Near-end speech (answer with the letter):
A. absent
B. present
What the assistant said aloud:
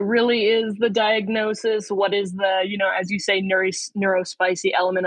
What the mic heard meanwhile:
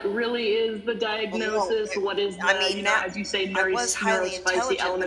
B